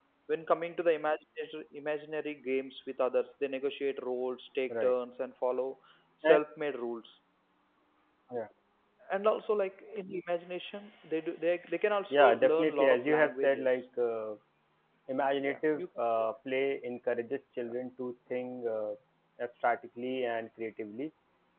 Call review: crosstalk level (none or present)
present